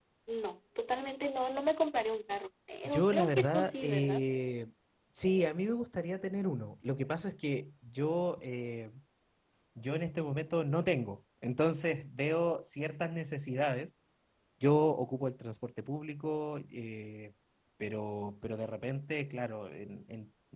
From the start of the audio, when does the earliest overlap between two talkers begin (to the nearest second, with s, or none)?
3 s